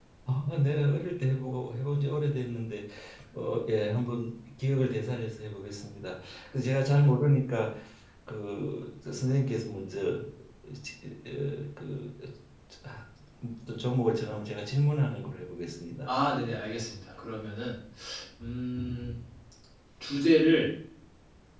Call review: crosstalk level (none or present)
none